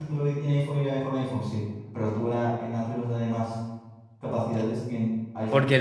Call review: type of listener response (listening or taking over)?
taking over